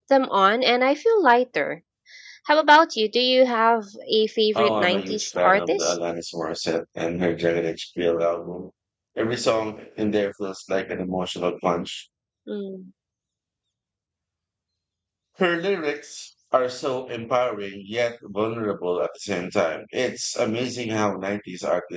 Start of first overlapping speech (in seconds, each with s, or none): 4.5 s